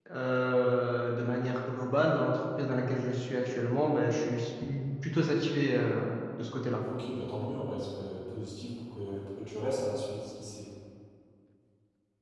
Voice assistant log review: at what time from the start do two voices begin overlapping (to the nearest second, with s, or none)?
none